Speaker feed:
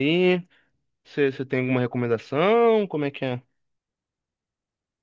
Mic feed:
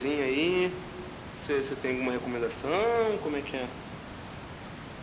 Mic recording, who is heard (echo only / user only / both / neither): echo only